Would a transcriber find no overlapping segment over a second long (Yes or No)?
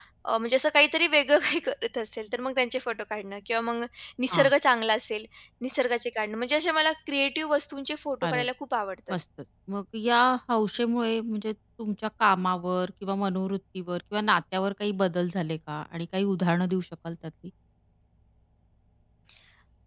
Yes